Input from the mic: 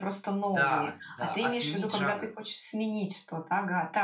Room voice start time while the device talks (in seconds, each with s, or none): 0.5 s